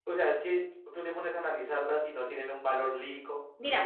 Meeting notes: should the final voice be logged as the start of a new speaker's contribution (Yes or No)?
Yes